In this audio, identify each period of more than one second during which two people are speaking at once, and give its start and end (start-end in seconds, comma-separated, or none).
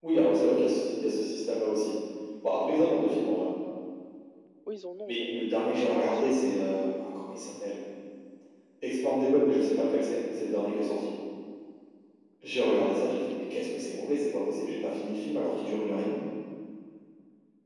5.1-6.3